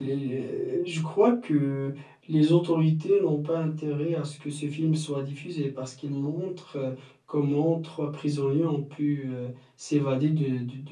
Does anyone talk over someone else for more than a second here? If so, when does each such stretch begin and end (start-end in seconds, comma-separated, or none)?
none